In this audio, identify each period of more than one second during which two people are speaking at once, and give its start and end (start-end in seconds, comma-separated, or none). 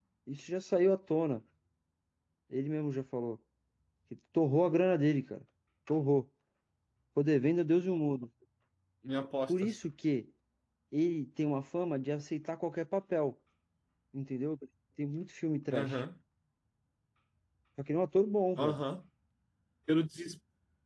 none